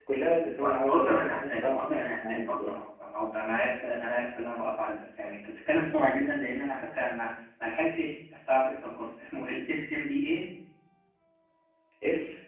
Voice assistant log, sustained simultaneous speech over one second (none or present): present